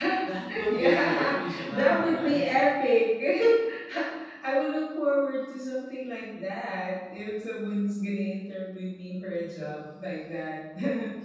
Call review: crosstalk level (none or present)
present